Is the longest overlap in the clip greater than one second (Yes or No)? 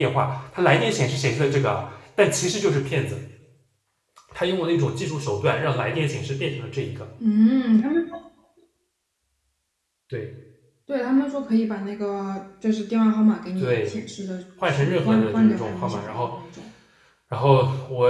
Yes